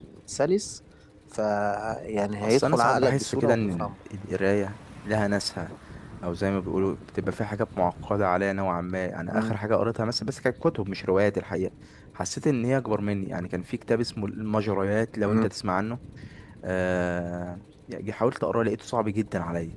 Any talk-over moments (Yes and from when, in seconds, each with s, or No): Yes, from 2.4 s